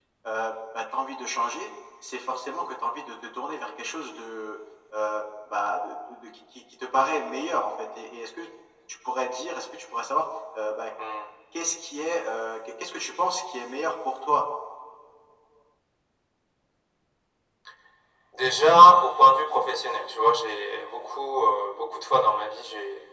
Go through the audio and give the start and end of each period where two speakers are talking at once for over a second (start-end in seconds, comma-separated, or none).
none